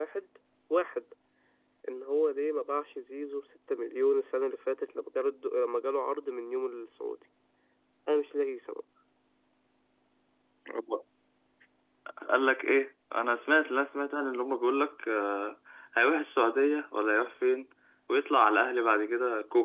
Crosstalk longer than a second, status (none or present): none